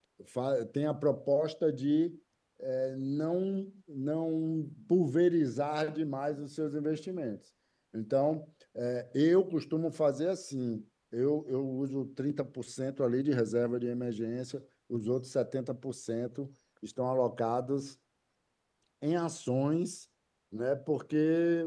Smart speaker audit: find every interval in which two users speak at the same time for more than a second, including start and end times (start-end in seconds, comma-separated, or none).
none